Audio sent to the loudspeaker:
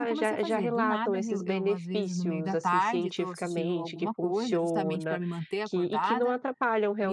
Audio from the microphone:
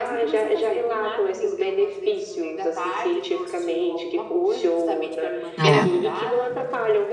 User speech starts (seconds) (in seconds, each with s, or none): 5.6 s